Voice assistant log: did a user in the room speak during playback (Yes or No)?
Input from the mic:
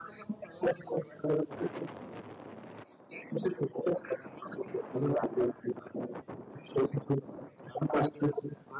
No